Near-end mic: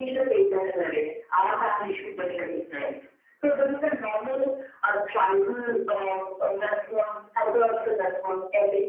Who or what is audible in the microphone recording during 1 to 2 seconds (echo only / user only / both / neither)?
echo only